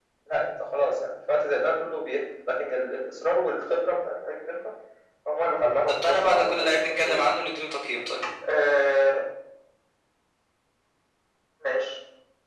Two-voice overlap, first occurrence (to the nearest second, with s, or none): 6 s